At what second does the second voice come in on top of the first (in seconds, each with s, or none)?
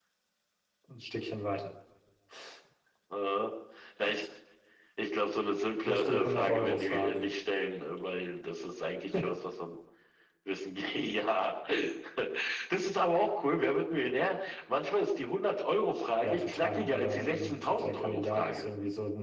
5.8 s